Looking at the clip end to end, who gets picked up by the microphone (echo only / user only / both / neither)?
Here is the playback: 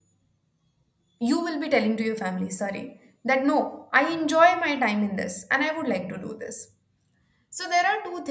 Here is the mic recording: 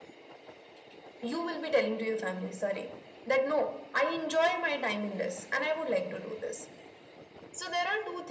echo only